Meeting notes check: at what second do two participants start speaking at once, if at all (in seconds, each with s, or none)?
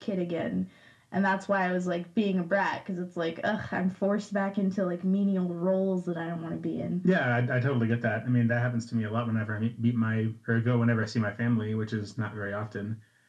none